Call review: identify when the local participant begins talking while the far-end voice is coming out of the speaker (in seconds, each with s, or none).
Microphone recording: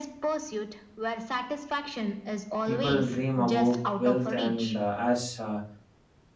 2.6 s